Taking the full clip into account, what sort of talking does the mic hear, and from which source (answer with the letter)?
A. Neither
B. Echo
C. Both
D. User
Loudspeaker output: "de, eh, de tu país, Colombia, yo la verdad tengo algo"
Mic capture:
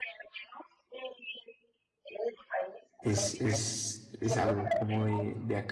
C